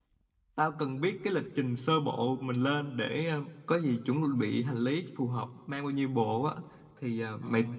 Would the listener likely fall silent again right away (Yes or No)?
Yes